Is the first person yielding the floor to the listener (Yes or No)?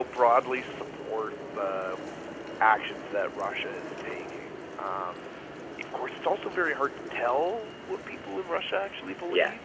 No